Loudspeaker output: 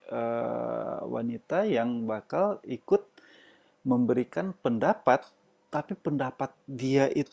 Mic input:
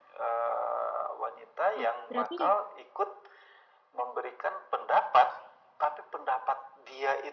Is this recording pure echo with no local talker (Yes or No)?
No